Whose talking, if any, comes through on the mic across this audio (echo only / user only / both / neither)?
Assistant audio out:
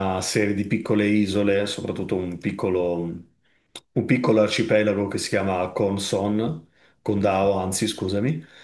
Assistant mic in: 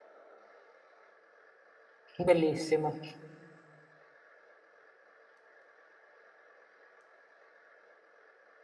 user only